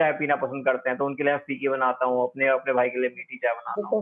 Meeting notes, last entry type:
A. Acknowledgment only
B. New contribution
B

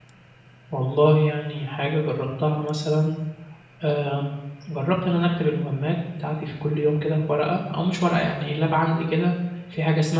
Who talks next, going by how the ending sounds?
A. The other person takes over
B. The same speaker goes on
B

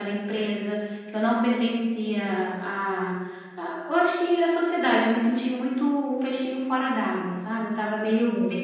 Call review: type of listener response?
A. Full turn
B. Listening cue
A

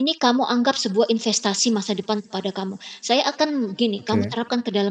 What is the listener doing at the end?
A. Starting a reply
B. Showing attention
B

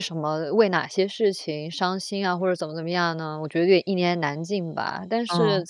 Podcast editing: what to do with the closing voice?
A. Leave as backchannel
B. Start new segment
A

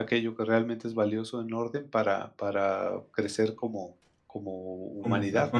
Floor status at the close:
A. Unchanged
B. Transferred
B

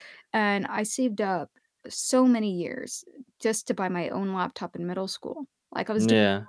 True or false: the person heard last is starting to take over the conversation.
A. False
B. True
A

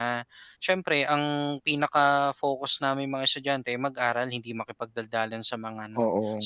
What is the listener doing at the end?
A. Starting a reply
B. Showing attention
B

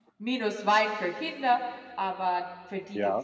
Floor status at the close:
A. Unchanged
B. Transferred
B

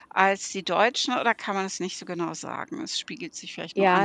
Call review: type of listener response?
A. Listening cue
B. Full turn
B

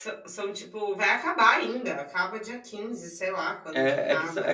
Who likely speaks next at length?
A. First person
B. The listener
B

